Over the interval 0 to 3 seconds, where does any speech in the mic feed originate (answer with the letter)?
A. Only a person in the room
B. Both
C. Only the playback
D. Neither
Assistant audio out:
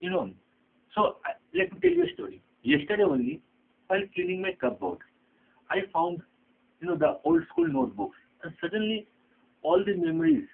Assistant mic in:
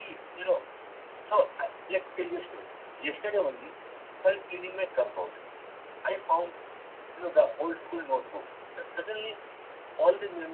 C